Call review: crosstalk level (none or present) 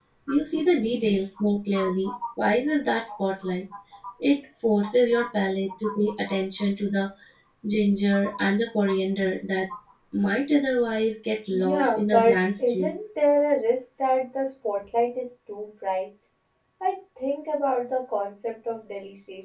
present